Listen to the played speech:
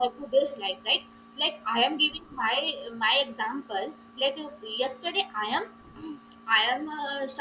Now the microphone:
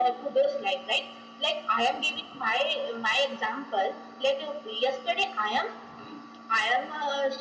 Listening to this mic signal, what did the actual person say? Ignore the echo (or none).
none